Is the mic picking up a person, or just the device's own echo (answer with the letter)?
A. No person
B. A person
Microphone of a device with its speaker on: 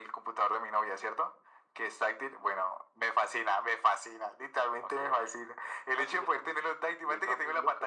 A